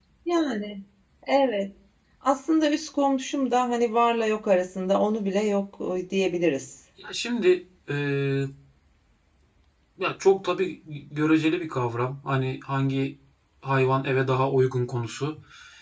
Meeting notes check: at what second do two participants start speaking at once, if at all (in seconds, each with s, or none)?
none